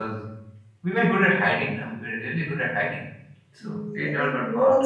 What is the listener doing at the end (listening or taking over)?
taking over